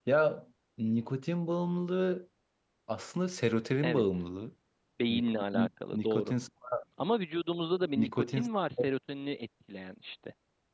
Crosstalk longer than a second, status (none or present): present